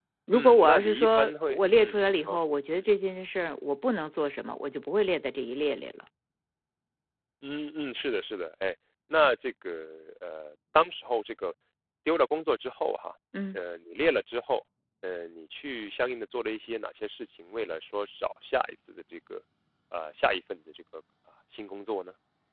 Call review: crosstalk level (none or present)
present